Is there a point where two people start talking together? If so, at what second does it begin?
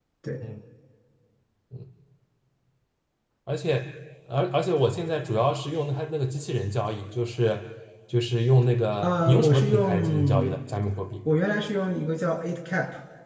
9.0 s

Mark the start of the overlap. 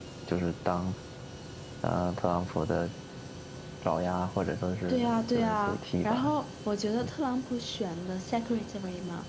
4.9 s

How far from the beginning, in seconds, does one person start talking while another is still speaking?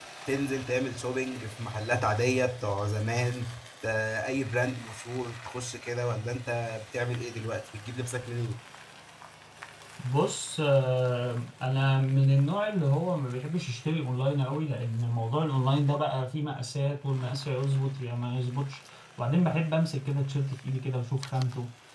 none

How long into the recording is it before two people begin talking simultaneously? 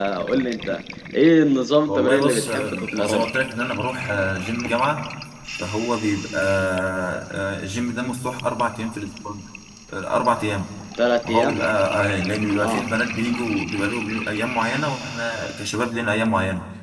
1.9 s

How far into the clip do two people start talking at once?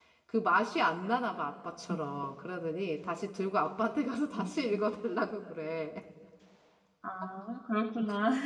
none

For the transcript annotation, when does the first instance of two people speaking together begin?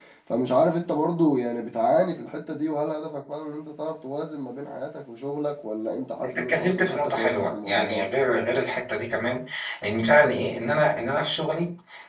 6.2 s

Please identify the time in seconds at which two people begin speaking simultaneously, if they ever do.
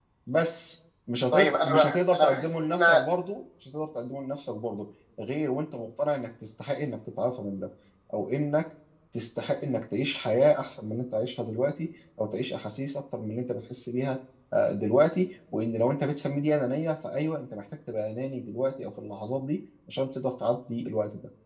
1.3 s

